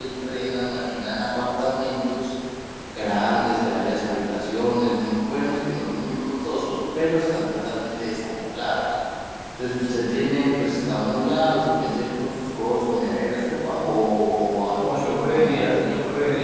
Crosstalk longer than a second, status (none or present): present